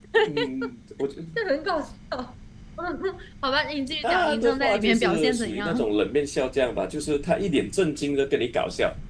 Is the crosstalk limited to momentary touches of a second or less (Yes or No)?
No